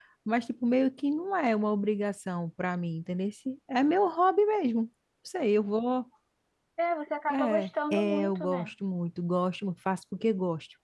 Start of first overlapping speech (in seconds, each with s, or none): 7.3 s